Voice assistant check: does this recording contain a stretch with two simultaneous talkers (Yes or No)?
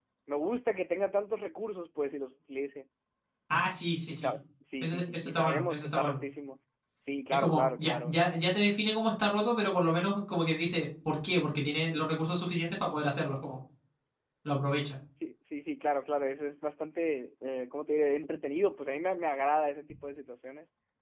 Yes